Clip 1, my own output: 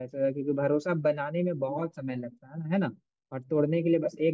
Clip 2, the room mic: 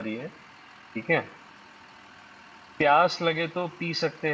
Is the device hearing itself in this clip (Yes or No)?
No